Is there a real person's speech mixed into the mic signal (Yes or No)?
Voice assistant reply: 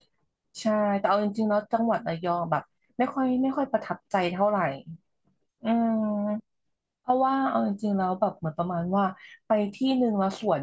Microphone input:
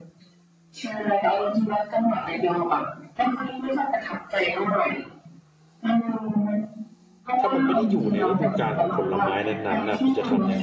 Yes